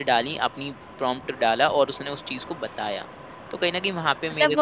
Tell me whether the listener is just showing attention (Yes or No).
No